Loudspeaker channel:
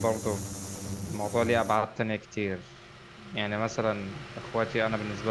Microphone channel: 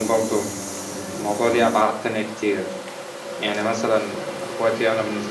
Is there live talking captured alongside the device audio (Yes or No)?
No